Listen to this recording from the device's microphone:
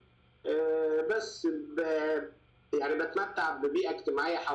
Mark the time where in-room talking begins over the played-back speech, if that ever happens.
none

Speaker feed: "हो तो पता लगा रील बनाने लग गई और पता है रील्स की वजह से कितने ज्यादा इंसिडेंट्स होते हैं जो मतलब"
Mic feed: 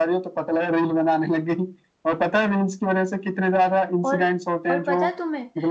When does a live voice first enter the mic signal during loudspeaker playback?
4 s

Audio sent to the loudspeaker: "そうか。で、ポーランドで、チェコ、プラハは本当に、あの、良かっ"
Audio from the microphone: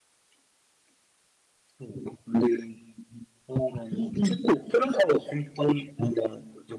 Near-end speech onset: 4 s

